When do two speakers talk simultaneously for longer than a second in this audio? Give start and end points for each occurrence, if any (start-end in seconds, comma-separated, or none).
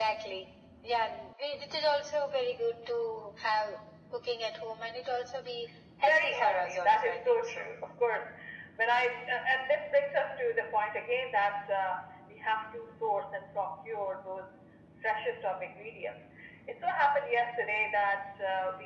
6.0-7.7